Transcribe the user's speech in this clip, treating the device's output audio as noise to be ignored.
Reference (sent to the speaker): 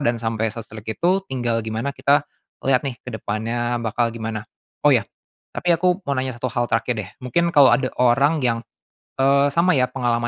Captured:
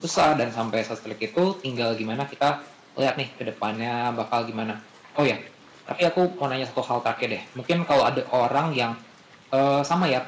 none

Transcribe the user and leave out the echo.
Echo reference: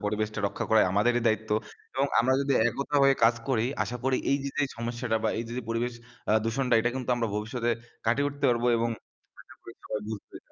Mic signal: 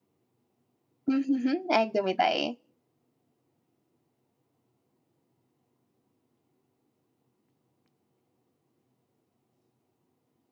উম হুম, হুম। একদমই তাই।

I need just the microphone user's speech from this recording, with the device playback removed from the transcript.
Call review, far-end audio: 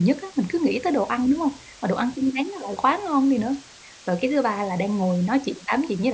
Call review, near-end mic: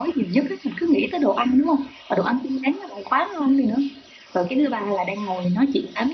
none

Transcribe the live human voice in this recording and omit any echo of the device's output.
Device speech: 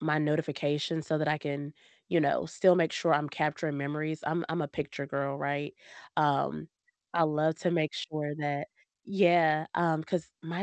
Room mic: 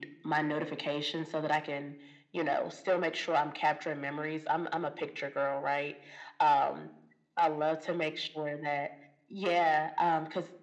none

